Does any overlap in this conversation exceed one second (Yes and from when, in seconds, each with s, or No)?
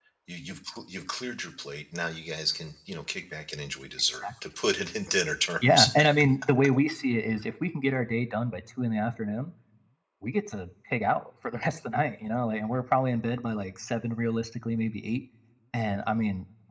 No